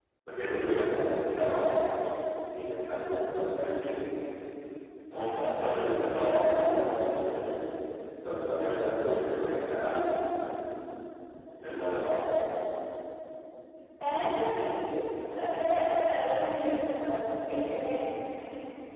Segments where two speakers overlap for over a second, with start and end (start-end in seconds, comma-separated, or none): none